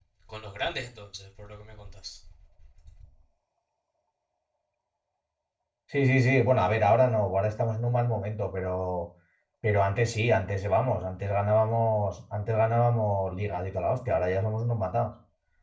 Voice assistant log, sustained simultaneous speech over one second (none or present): none